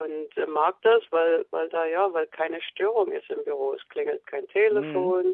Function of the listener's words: listening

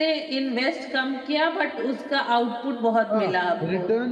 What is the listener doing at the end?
taking over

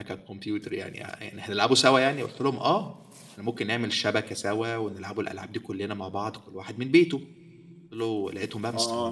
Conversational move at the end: taking over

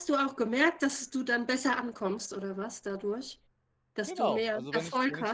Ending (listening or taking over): taking over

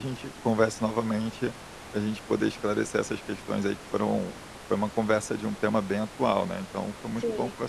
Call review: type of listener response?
taking over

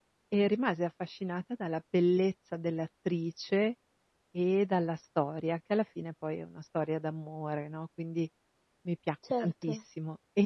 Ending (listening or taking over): listening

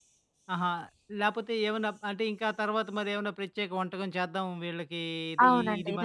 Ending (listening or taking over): taking over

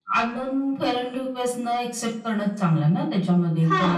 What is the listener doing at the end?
taking over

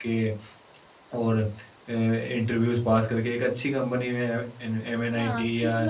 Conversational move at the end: taking over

